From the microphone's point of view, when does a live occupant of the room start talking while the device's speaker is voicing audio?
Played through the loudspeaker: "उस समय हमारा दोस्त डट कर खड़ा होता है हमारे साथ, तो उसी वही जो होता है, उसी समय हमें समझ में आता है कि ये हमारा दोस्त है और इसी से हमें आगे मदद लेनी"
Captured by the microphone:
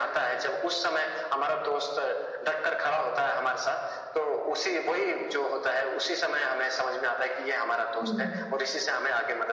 8 s

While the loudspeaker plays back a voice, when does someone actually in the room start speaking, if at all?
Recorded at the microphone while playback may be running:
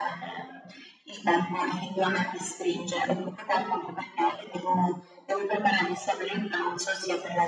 none

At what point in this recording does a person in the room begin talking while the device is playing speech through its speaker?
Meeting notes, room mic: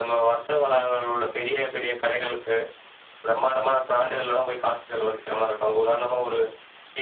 none

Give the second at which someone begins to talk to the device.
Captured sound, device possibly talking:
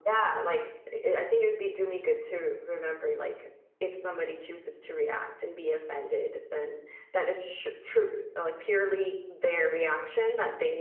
none

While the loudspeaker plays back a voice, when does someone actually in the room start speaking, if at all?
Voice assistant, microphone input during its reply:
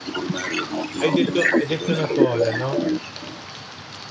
1 s

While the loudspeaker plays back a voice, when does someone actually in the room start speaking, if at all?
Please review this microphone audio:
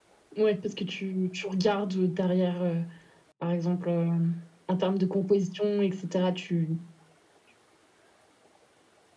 none

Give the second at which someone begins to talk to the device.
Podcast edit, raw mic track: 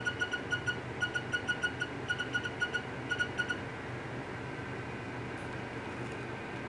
none

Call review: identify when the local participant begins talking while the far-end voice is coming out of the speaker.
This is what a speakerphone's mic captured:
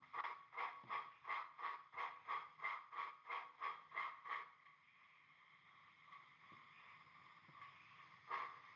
none

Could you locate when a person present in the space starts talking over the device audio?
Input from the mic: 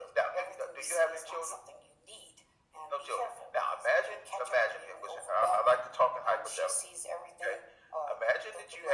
none

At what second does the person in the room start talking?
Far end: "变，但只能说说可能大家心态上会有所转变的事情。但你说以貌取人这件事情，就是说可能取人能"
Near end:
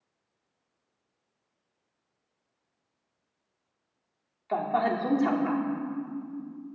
4 s

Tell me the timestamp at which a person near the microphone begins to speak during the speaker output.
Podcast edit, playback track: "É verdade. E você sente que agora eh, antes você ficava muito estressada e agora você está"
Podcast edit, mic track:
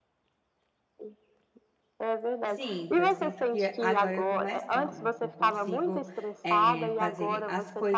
2 s

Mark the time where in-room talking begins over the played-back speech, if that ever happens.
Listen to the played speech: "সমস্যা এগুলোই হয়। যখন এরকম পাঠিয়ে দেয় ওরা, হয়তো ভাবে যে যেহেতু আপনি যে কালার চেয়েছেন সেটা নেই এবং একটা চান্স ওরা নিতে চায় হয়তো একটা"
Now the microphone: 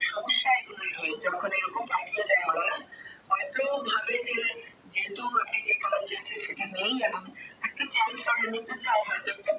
none

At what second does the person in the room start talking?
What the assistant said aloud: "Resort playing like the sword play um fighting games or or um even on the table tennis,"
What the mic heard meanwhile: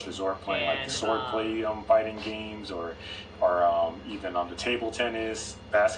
0 s

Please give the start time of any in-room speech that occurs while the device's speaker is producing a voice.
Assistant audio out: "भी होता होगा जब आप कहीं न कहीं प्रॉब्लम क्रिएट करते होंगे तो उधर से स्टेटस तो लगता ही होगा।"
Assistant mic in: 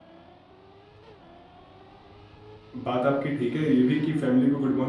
3 s

